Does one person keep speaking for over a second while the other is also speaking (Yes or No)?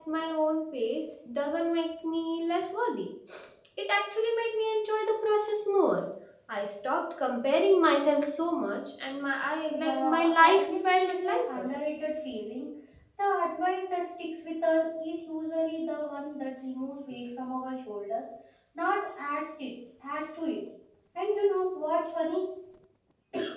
Yes